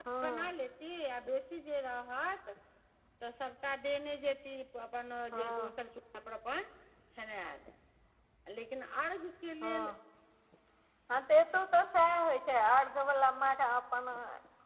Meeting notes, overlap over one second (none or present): none